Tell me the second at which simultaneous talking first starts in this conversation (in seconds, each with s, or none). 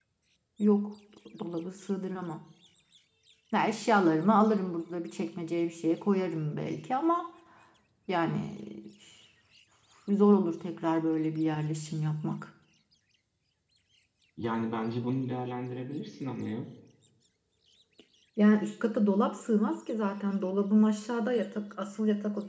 none